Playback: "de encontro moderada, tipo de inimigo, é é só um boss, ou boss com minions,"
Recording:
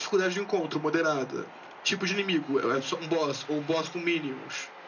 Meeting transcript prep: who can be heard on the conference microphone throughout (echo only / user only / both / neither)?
echo only